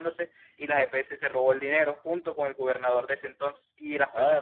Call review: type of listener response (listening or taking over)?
listening